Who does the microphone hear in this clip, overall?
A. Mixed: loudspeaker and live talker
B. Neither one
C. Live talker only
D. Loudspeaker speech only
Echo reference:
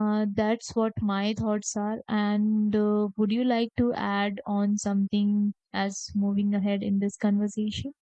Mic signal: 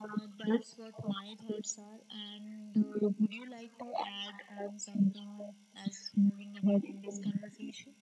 D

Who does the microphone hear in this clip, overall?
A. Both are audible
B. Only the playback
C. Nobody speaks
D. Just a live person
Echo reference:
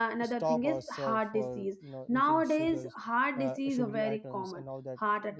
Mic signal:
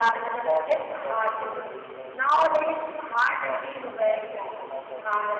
B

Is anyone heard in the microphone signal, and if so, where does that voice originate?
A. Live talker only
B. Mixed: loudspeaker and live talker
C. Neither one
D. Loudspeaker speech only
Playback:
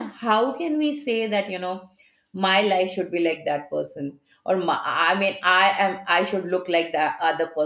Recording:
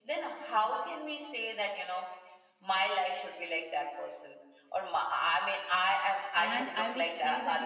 B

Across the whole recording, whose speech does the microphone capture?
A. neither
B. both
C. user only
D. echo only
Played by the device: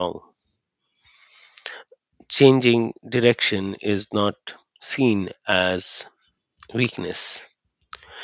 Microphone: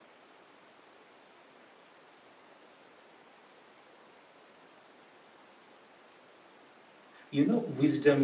C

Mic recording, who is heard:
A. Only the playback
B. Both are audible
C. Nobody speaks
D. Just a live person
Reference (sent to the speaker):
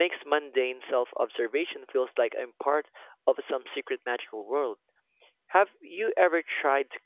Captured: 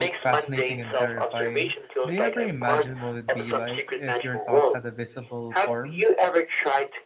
B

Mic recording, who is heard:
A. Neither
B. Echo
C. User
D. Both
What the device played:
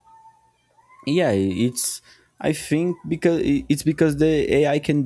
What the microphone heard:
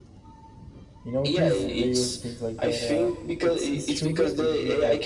D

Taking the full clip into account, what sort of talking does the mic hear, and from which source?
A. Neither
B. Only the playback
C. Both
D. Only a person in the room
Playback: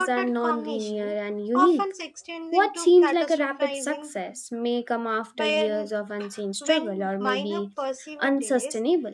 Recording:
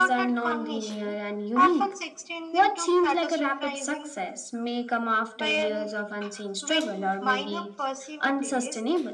B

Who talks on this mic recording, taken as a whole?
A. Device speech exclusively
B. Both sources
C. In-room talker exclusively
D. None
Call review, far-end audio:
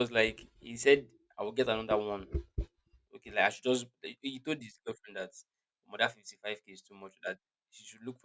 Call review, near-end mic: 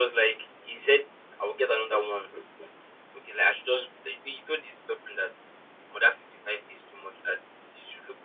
A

